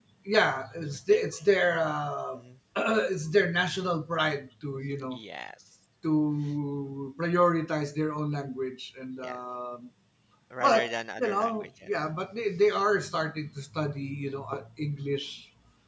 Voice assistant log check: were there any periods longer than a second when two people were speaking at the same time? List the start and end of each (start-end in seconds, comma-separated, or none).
10.6-11.9